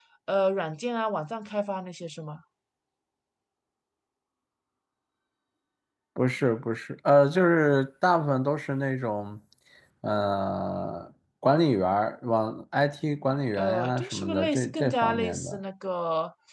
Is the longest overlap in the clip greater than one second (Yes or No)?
Yes